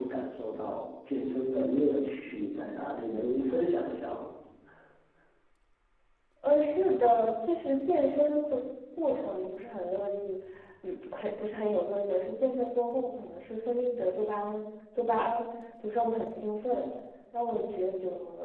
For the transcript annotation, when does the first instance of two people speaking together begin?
none

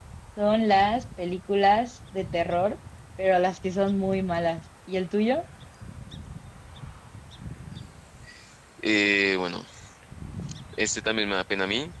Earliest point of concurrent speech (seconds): none

